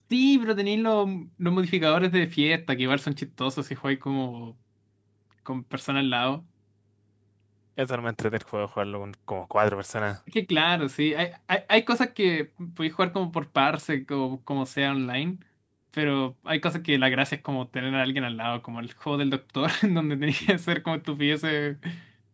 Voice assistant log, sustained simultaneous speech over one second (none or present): none